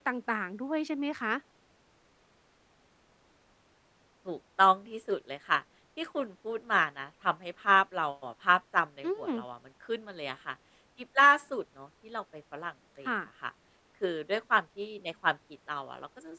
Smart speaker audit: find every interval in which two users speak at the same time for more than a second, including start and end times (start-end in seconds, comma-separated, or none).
none